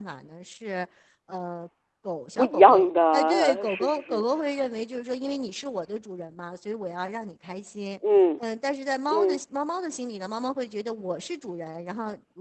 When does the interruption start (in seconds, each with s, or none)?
2.4 s